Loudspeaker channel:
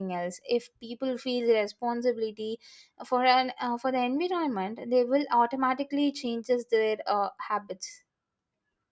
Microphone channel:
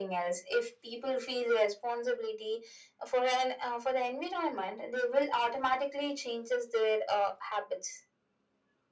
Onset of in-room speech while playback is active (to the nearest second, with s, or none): none